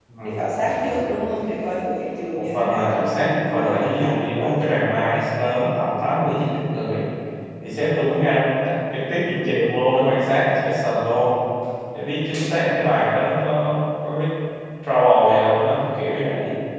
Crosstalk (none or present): present